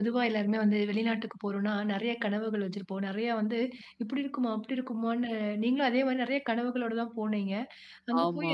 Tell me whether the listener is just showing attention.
Yes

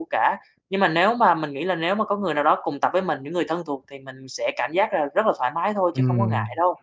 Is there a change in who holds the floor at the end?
Yes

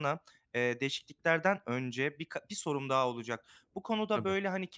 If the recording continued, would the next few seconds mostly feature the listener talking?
No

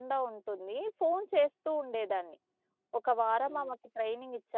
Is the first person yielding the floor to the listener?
No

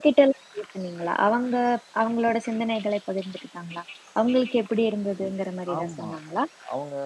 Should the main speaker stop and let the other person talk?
Yes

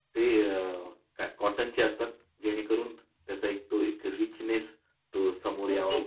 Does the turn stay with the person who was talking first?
No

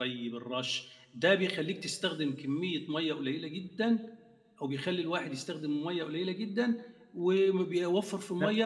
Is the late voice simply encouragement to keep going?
Yes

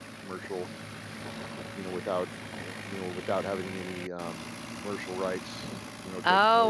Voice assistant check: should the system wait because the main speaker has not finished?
No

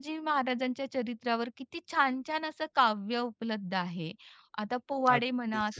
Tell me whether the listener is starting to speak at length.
No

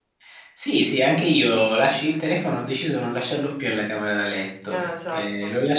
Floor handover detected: No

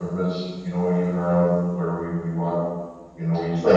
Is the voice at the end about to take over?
Yes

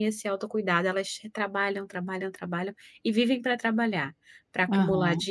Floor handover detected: No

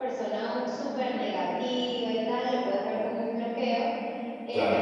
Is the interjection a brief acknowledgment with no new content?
Yes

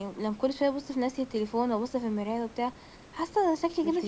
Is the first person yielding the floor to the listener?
No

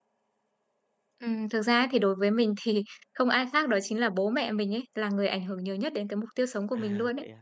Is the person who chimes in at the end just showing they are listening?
No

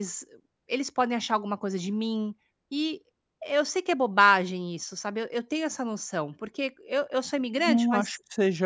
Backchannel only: No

